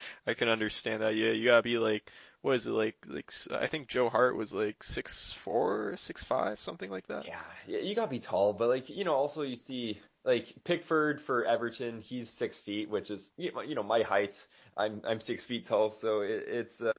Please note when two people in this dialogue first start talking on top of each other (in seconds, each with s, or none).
none